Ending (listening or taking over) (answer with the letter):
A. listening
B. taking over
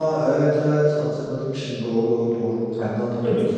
B